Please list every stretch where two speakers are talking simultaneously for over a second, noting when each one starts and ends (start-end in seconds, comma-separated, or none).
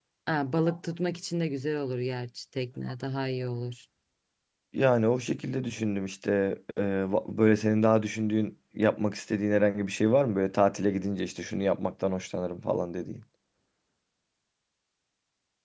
none